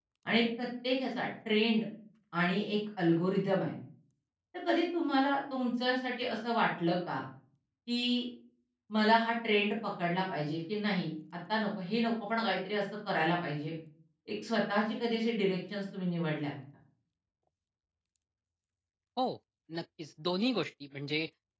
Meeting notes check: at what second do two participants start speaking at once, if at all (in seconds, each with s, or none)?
none